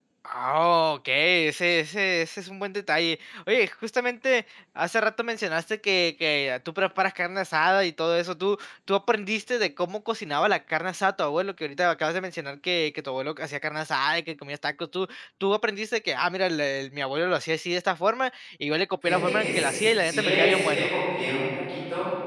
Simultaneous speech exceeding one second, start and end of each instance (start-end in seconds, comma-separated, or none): 19.0-20.9